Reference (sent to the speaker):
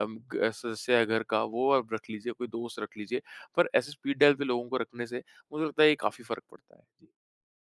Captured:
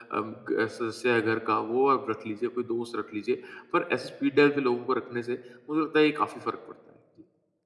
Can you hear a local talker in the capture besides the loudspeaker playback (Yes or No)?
No